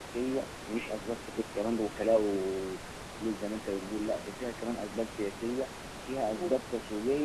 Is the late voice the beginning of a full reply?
No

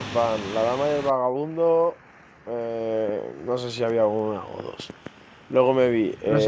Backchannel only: Yes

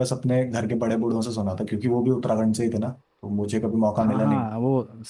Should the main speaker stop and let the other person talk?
Yes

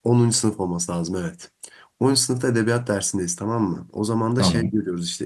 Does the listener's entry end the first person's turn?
No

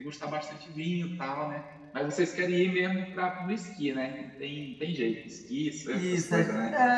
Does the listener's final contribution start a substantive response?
Yes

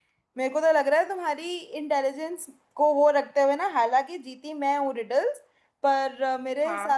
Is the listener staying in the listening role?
Yes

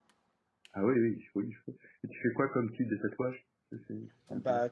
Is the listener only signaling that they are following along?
No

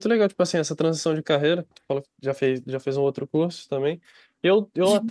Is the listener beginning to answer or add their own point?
No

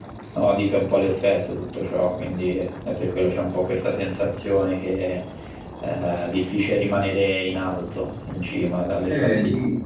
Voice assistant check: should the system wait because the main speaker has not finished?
No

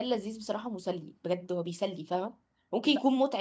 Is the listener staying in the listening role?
Yes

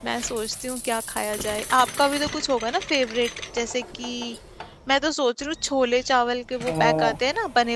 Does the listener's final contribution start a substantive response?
No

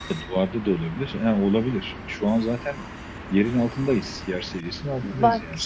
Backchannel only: No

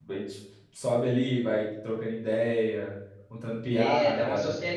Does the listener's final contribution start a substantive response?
Yes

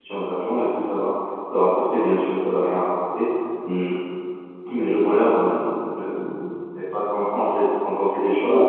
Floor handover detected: No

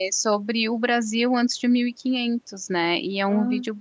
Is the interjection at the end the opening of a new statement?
No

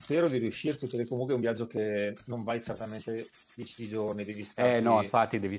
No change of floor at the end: No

